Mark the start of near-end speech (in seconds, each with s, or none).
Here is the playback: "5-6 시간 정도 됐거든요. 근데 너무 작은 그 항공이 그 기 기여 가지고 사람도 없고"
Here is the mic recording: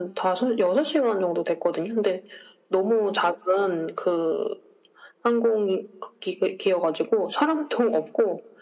none